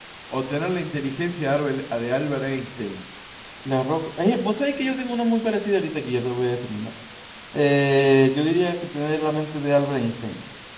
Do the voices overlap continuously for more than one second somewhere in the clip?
No

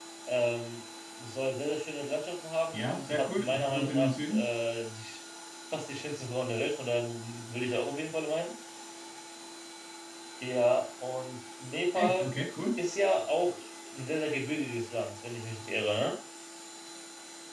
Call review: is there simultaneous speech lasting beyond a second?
Yes, from 2.7 s

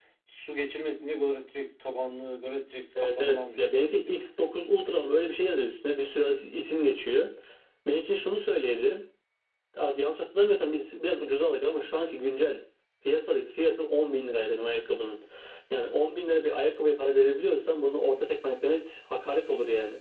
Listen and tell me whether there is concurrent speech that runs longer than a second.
Yes, from 3.0 s

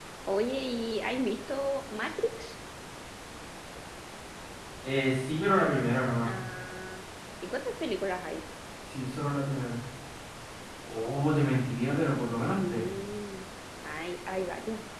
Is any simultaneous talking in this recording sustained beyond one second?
No

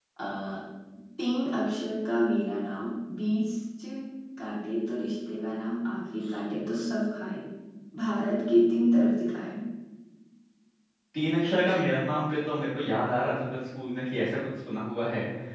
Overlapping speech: No

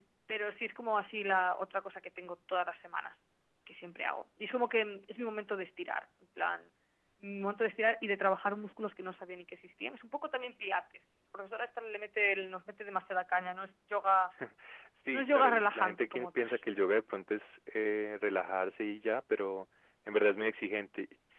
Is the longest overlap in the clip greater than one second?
Yes, from 15.1 s

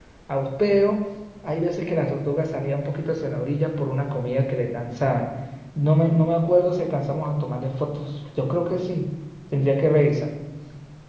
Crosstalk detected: No

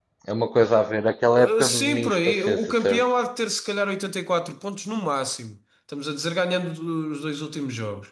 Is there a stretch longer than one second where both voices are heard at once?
Yes, from 1.6 s

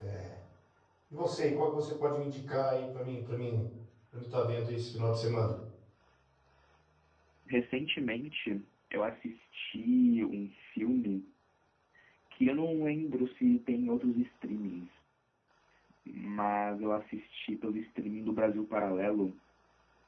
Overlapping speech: No

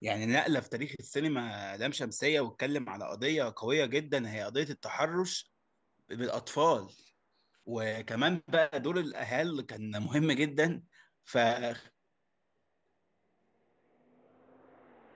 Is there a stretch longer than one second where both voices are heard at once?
No

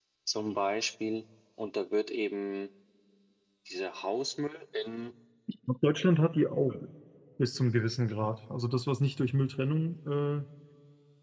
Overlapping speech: No

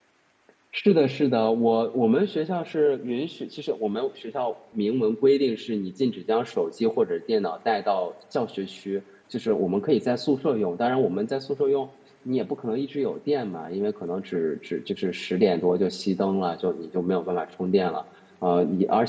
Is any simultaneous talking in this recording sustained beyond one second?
No

